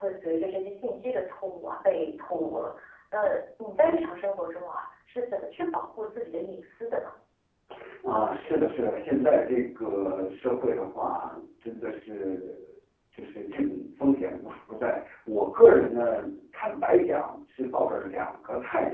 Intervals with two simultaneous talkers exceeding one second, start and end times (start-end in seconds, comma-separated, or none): none